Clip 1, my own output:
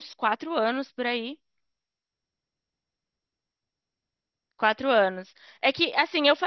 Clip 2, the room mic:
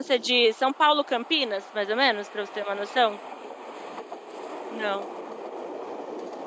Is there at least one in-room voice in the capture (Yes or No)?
Yes